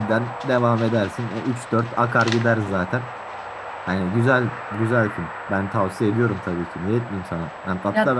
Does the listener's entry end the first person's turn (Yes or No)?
No